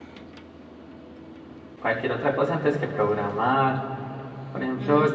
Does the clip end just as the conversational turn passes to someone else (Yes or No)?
No